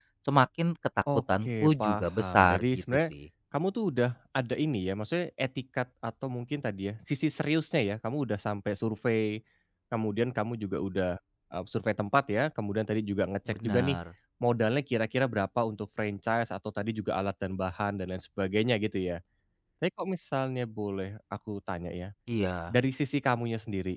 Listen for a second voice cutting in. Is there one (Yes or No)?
Yes